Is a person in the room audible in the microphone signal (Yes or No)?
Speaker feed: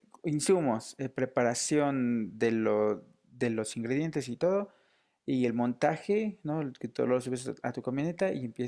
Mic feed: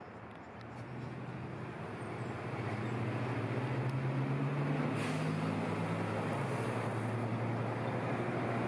No